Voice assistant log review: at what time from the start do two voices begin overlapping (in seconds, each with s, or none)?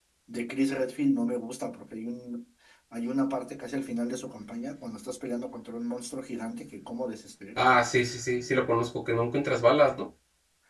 none